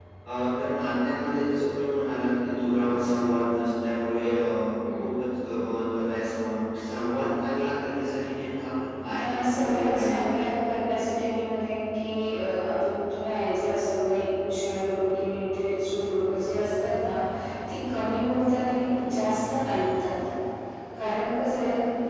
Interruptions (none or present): present